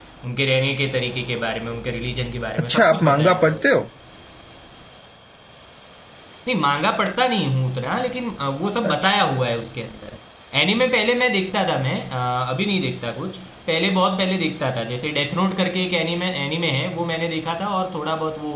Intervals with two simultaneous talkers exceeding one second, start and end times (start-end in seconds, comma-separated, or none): 2.6-3.8